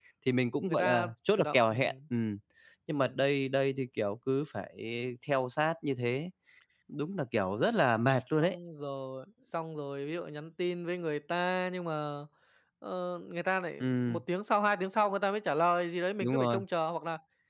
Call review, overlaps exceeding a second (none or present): present